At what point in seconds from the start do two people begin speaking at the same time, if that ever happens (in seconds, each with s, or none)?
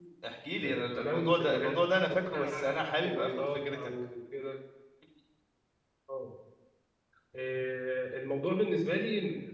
0.6 s